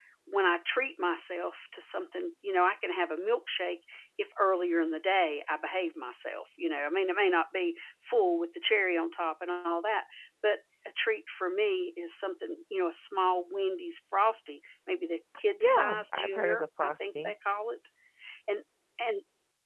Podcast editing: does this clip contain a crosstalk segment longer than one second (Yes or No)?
Yes